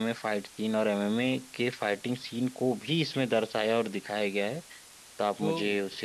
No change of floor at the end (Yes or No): No